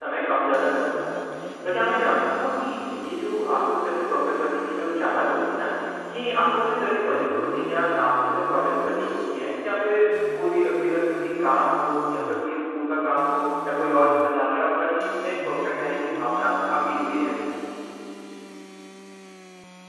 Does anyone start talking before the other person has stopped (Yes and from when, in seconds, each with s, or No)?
No